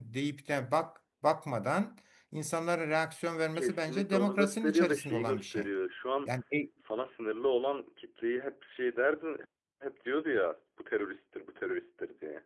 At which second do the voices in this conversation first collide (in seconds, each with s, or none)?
3.5 s